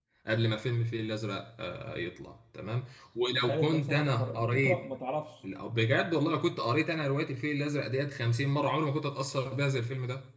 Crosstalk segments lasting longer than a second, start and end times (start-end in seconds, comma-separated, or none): 3.5-4.8